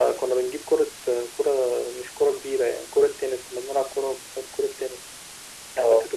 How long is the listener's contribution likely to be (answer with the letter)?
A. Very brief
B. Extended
A